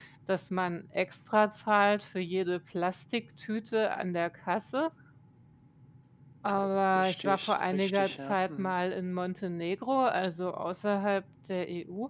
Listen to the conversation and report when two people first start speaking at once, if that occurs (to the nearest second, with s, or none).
7 s